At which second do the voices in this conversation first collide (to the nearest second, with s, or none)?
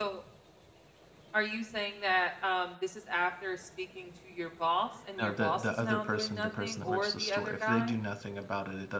5 s